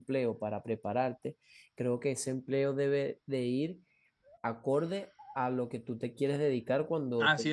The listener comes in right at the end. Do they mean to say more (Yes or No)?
Yes